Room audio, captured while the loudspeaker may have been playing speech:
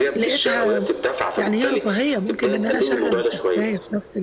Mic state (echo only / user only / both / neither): both